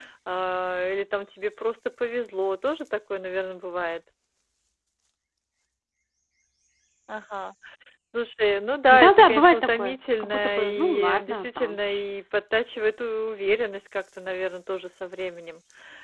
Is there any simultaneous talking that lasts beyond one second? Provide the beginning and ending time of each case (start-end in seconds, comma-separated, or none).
8.9-12.0